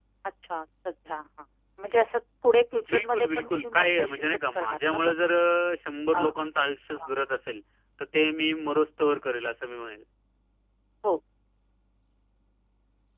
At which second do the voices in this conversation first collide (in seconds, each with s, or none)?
2.9 s